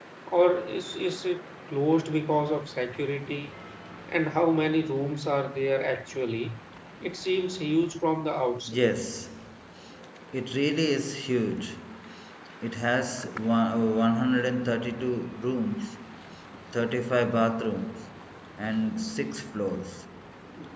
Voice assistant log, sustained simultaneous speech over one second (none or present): none